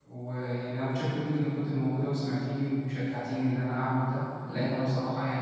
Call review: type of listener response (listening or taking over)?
listening